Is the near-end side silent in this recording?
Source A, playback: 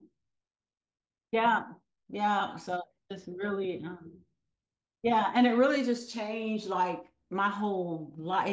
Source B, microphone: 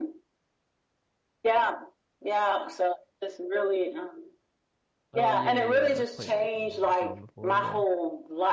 No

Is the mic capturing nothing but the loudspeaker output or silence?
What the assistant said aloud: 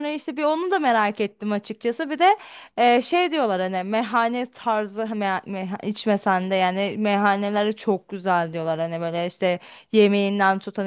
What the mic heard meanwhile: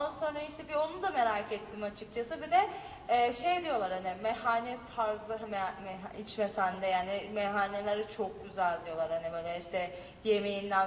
Yes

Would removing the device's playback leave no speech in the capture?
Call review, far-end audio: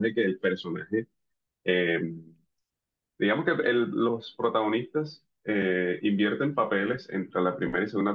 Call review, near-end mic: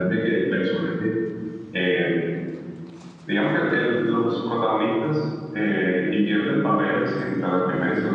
Yes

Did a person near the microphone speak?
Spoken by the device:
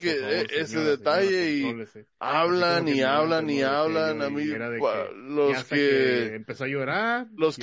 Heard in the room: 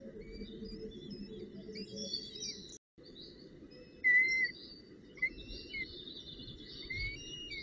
No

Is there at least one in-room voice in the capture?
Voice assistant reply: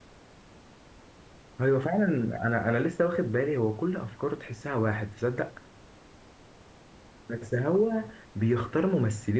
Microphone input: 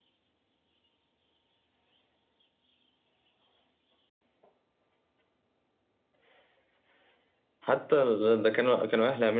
Yes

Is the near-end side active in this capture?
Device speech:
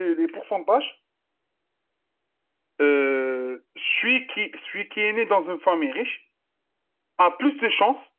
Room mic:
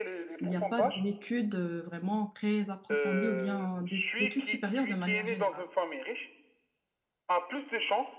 Yes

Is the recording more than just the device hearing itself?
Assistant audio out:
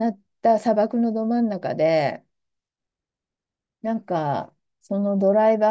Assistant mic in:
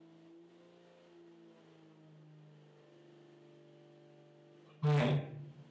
Yes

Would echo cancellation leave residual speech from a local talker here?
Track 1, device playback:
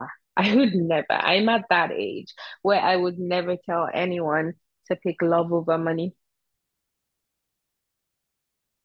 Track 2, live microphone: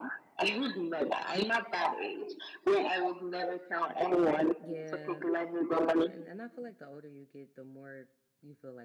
Yes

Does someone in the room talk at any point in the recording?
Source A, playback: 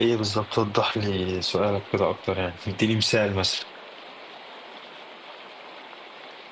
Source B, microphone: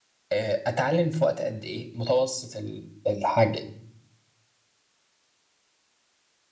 Yes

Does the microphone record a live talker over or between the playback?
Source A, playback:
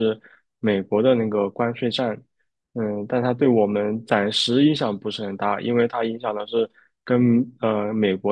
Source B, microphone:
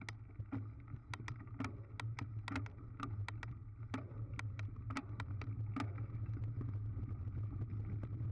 No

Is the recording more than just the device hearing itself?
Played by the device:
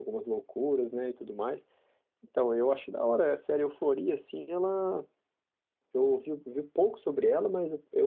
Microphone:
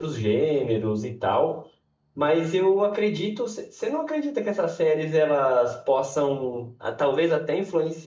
Yes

